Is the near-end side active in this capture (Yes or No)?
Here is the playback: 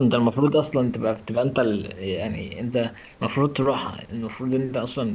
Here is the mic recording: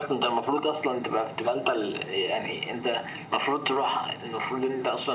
No